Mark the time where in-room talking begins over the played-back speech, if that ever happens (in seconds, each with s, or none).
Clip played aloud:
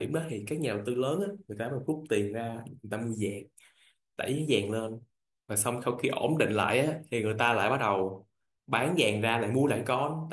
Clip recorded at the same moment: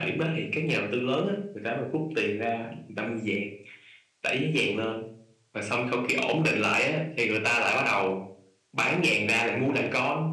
none